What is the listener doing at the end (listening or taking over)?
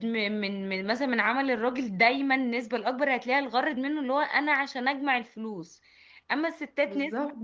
listening